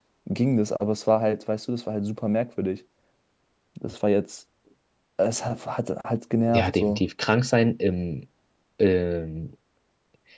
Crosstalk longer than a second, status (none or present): none